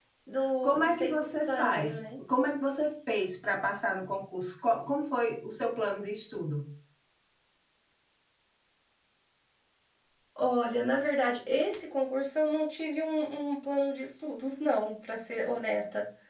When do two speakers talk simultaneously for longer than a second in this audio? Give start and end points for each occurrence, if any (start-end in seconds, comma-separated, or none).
0.6-2.0